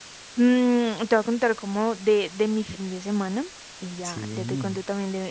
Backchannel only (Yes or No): Yes